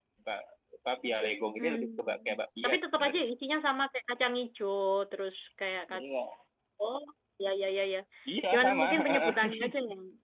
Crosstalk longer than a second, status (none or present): present